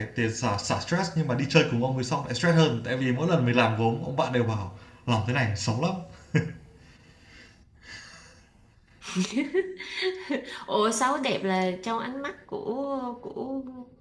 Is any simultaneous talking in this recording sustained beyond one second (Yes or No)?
No